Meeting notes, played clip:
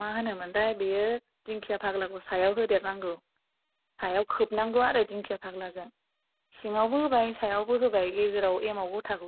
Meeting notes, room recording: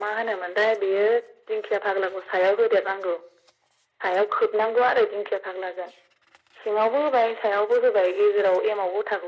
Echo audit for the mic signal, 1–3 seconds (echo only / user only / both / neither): echo only